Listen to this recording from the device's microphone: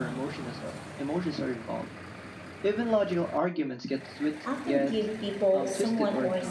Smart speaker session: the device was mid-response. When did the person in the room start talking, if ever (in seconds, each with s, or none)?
4.5 s